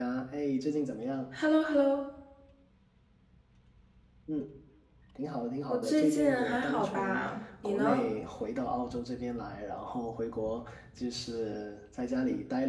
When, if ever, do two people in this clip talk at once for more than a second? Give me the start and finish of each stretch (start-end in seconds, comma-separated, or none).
5.7-7.2